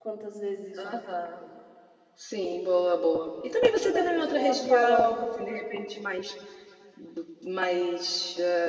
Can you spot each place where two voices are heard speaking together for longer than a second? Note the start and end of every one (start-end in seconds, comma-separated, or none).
3.8-5.2